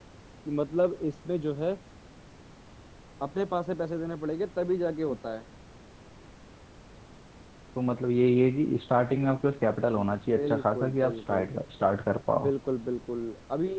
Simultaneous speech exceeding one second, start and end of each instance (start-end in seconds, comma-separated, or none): 10.0-11.4